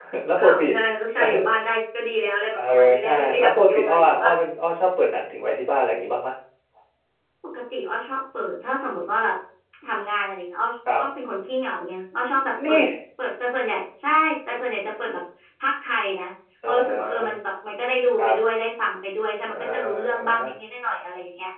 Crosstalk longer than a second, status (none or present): present